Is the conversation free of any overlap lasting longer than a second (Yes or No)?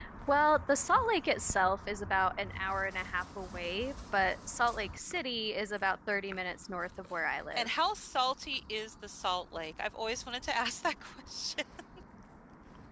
Yes